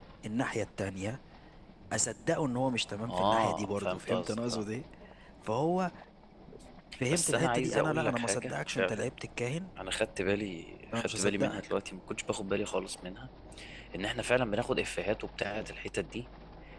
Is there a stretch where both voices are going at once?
Yes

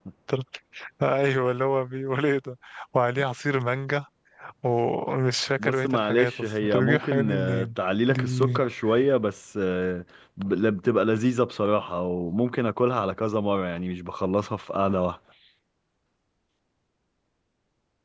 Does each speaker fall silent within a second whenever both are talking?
No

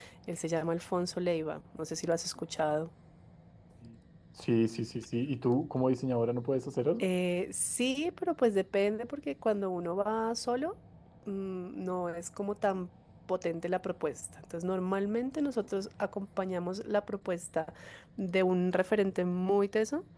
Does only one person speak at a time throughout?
Yes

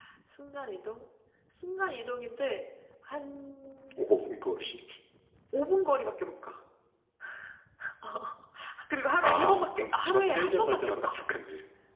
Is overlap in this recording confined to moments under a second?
No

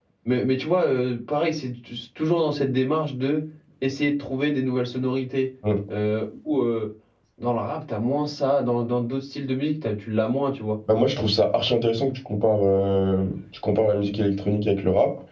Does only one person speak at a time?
Yes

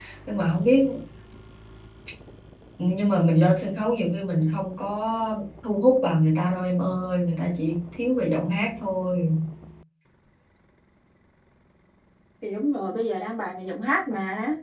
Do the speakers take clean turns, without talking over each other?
Yes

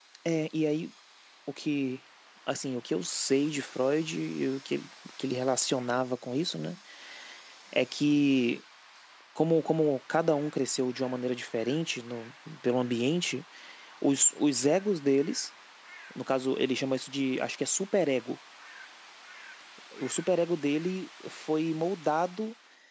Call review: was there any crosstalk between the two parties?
No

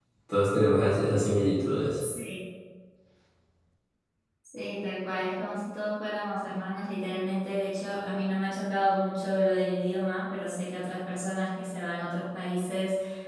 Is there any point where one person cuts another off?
No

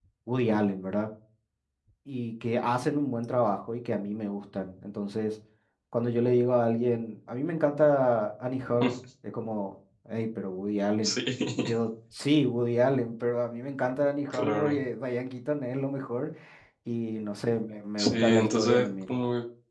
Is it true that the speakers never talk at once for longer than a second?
No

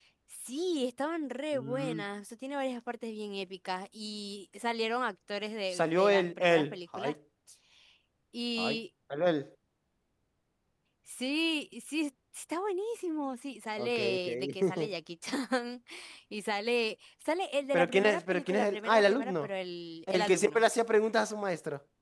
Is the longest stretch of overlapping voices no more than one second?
No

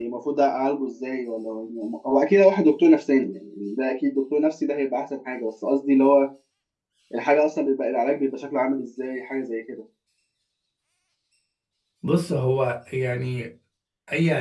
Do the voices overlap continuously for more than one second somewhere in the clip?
No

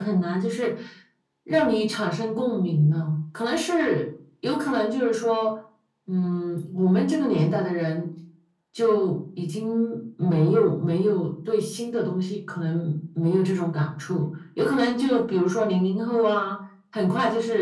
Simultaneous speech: No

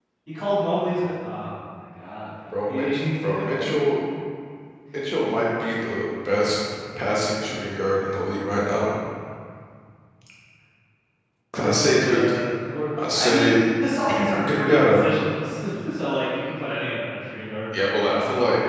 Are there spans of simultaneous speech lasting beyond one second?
Yes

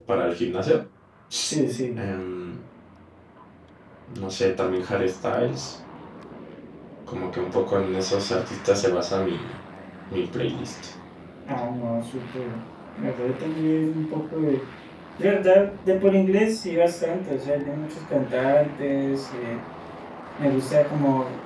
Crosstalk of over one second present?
No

